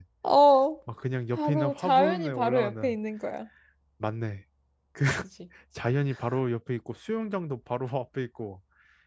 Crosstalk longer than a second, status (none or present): present